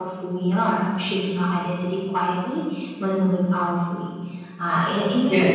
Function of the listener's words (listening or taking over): taking over